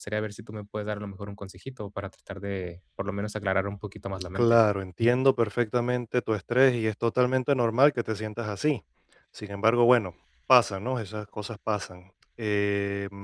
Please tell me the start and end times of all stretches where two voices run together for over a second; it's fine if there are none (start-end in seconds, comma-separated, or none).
none